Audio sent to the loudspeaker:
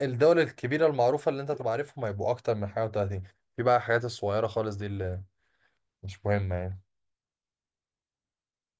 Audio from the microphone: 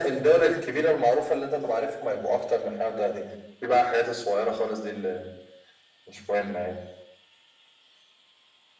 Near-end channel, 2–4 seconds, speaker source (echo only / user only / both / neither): echo only